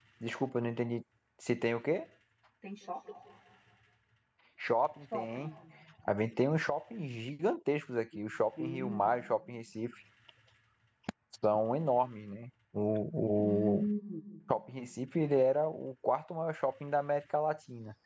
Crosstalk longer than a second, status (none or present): none